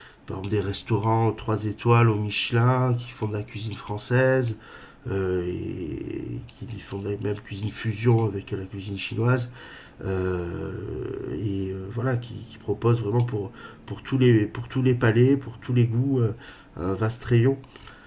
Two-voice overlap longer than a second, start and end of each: none

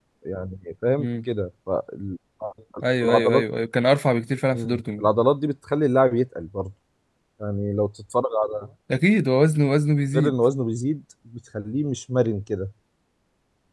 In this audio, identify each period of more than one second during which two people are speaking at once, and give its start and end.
none

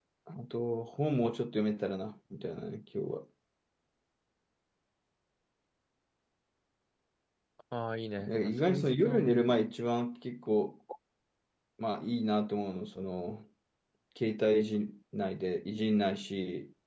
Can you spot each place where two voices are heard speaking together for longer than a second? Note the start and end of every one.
8.2-9.6

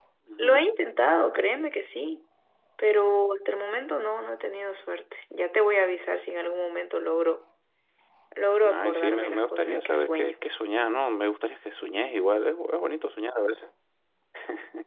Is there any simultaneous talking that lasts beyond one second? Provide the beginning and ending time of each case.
8.7-10.3

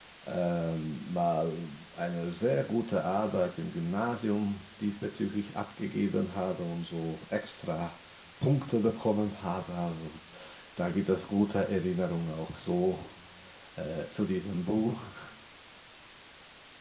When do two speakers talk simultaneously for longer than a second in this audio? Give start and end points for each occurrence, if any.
none

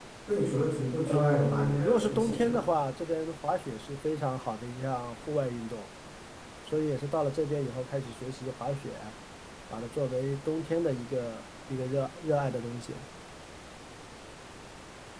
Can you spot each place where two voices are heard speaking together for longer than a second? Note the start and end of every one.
1.1-2.6

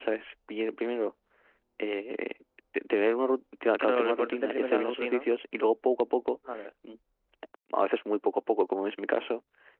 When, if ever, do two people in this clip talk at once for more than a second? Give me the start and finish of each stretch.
3.8-5.3

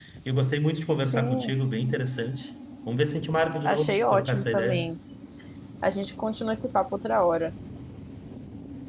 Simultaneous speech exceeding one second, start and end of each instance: 3.6-4.9

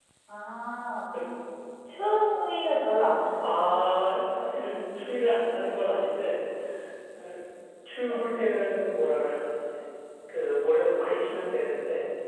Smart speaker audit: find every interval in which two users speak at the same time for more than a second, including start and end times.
none

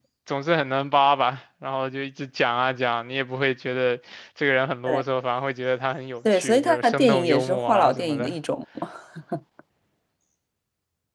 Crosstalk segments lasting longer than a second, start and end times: 6.3-8.3

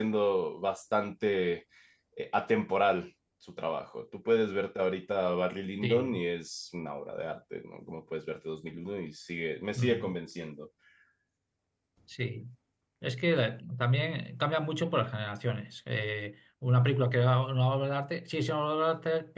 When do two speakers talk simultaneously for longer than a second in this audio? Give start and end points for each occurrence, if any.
none

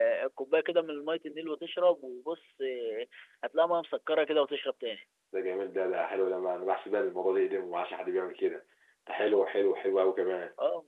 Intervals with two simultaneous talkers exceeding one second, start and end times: none

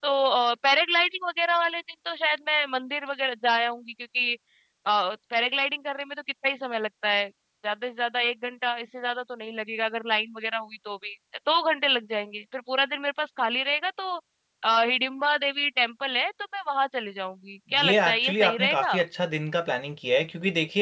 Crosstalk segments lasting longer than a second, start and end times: 17.7-19.0

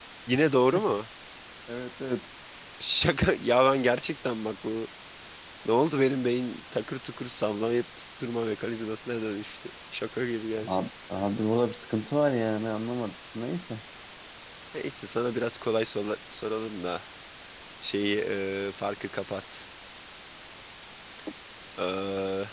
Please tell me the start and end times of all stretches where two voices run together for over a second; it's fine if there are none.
none

